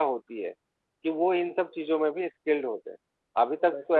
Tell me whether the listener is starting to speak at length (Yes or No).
No